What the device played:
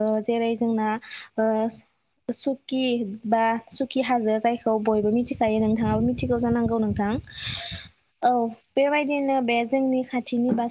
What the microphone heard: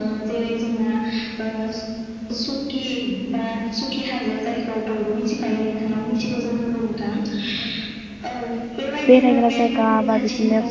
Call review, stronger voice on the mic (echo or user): user